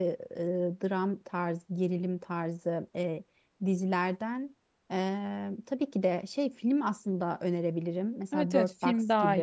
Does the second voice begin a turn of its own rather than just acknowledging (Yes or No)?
Yes